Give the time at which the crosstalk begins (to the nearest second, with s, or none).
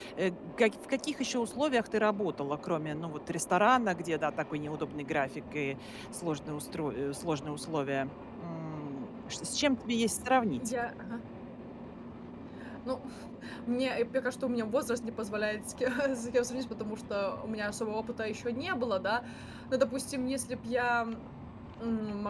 none